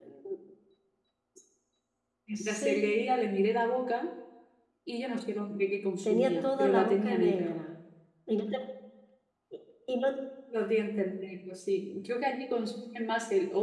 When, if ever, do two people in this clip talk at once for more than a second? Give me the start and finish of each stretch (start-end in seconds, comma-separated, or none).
6.0-7.5